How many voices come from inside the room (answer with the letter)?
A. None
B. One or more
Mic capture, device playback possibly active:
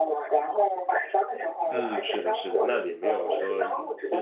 B